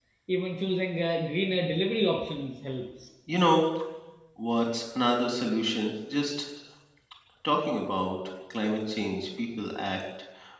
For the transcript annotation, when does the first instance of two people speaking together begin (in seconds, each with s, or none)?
none